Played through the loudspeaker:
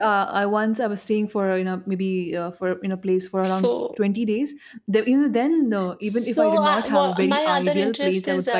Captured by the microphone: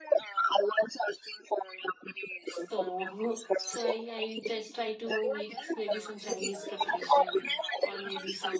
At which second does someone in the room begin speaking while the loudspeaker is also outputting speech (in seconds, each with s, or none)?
2.5 s